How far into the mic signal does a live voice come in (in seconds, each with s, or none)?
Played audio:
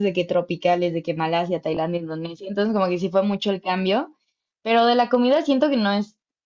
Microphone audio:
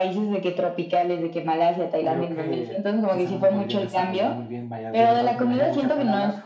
2.0 s